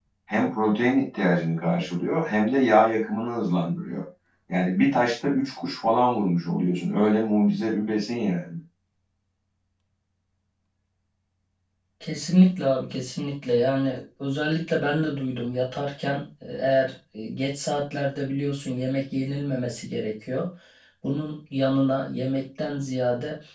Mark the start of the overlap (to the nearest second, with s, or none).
none